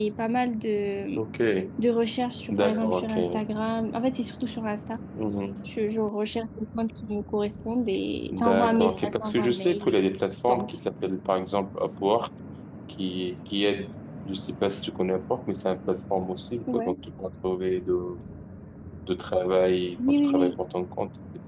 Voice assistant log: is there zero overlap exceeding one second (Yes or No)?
No